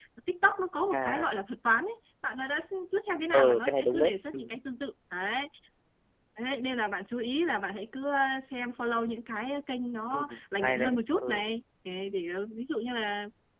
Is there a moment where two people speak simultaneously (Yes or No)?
Yes